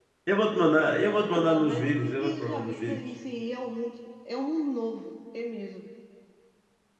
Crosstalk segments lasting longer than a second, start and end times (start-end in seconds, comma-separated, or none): 1.3-3.0